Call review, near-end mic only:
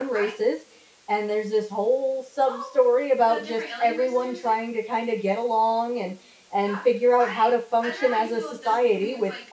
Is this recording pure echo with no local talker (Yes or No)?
No